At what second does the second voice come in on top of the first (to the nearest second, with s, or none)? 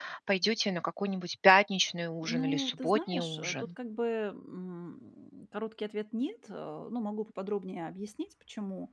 2 s